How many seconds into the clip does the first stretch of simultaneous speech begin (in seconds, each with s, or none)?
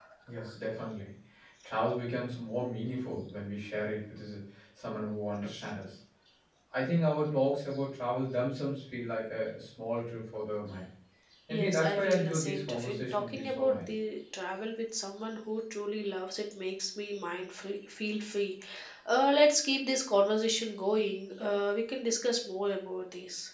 11.5 s